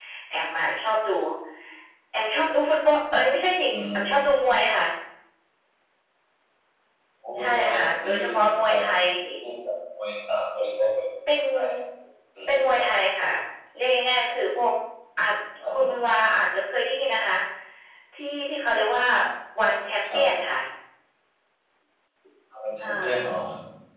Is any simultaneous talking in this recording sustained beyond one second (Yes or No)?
Yes